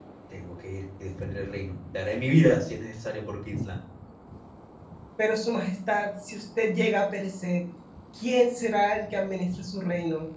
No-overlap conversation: Yes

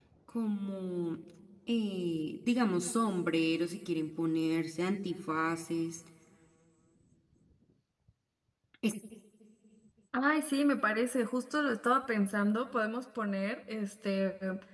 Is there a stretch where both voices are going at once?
No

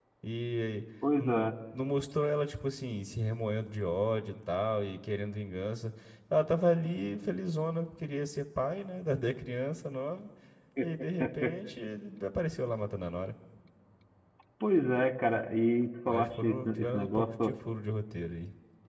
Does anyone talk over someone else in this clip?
Yes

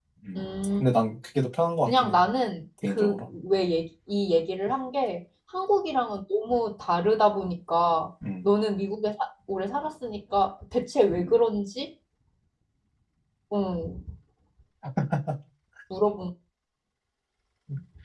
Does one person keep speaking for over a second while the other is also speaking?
No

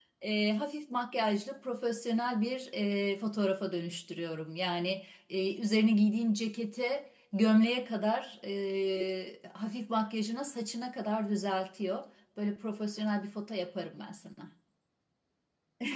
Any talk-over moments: No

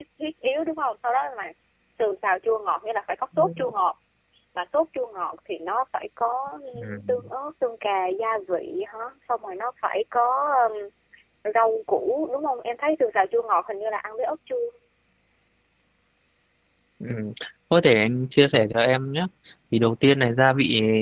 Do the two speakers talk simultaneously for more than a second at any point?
No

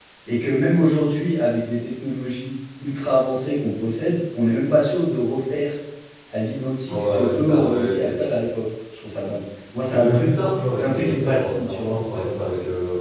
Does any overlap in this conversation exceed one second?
Yes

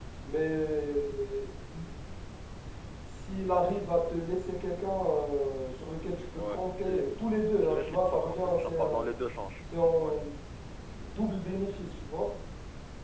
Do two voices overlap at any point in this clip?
Yes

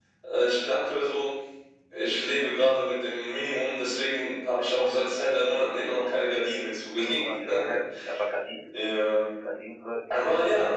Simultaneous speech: Yes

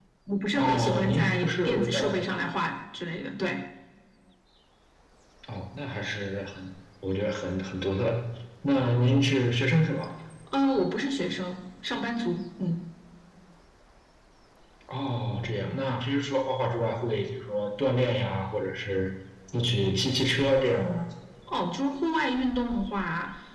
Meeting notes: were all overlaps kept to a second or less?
No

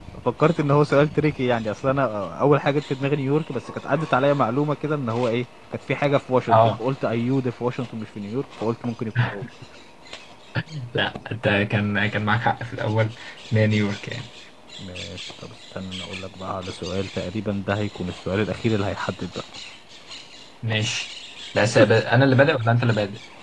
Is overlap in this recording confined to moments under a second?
Yes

